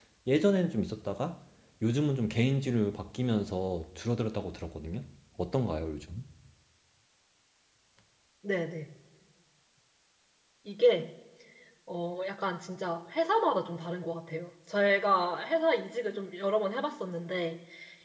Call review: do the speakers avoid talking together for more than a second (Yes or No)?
Yes